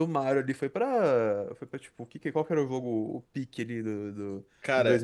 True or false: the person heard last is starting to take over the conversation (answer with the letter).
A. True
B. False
B